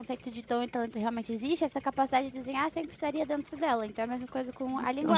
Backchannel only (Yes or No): No